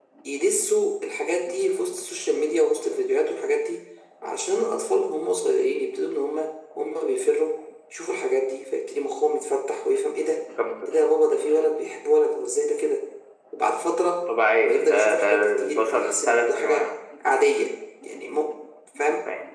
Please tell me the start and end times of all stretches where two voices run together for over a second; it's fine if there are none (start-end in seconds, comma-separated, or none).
14.5-16.9